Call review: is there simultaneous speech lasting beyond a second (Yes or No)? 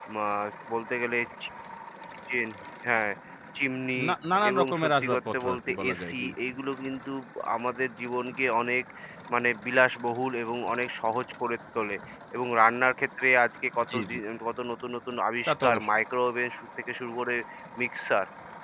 Yes